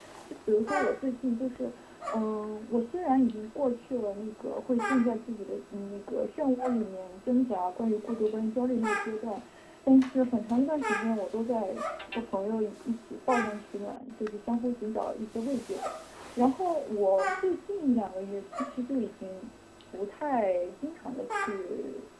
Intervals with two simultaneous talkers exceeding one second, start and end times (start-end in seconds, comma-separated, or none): none